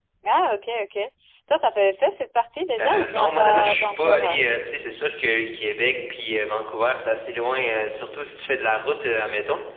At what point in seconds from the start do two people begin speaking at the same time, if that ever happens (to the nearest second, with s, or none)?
3 s